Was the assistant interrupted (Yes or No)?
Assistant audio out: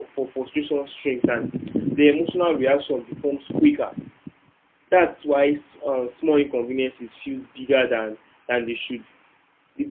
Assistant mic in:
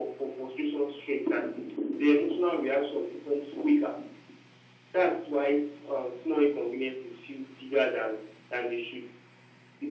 No